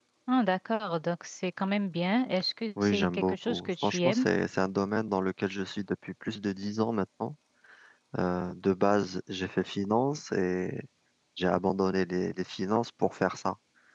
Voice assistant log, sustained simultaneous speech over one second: present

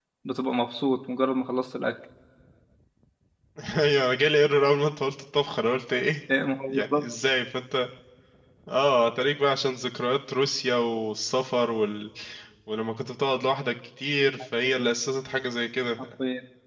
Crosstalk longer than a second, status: none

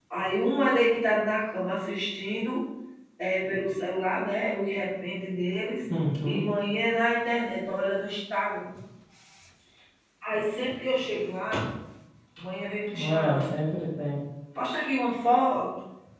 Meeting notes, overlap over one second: none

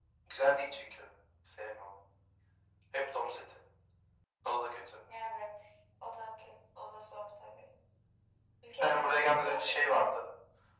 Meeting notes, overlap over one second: present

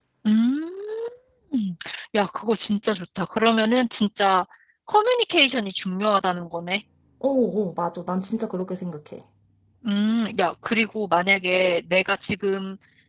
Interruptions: none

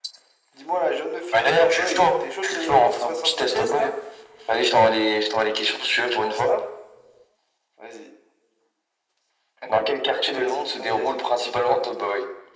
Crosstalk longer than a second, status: present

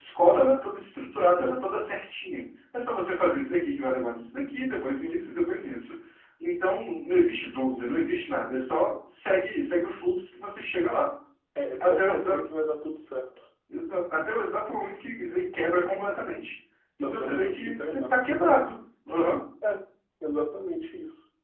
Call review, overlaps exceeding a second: present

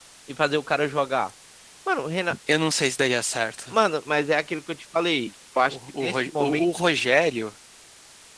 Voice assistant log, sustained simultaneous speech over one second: present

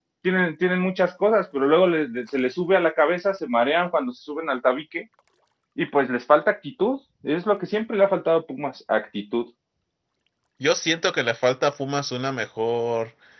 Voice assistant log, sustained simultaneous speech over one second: none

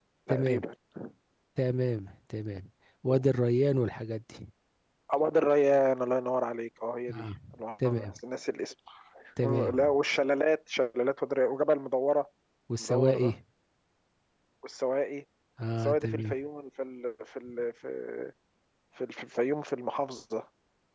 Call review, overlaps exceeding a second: none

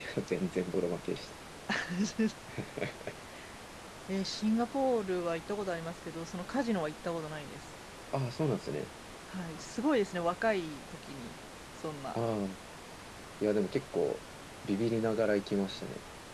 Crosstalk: none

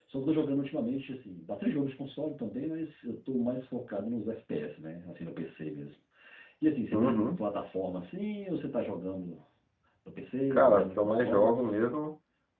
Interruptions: present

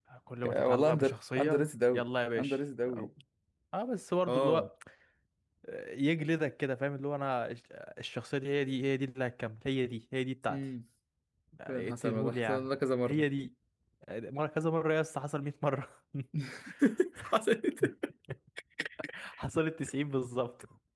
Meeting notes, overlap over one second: present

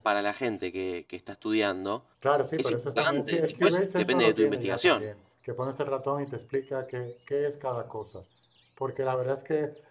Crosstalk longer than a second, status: present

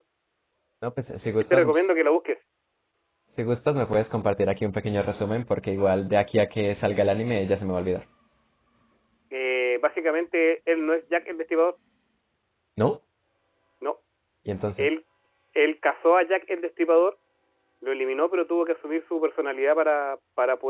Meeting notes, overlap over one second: none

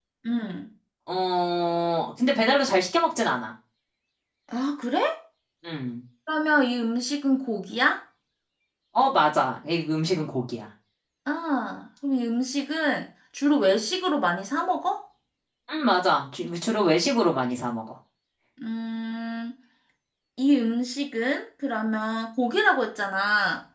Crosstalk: none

